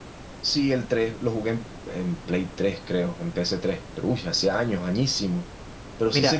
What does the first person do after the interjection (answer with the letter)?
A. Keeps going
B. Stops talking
A